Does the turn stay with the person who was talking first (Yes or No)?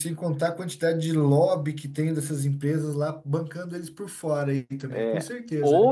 No